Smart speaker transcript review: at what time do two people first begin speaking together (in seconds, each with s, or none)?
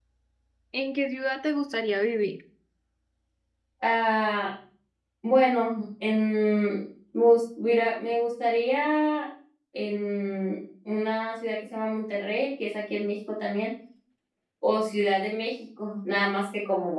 none